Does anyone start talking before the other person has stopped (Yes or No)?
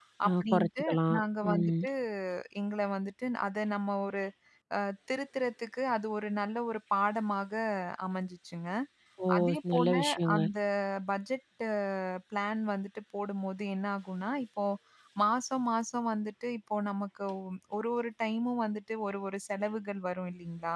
Yes